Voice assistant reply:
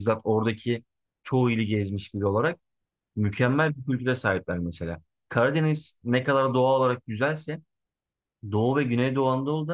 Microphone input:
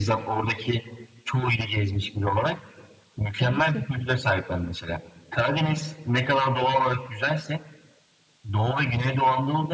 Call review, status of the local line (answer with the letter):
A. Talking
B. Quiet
A